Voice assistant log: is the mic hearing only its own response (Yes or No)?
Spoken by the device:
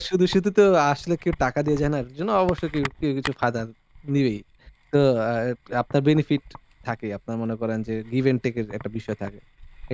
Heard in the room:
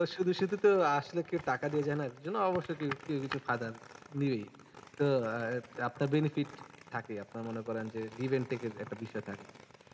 Yes